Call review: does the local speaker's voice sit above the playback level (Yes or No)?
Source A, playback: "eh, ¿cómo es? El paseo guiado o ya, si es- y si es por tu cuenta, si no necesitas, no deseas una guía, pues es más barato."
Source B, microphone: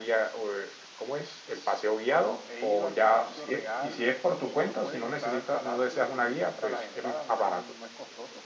No